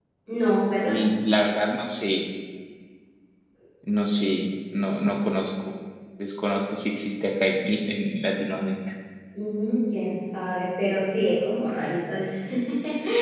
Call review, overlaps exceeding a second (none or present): none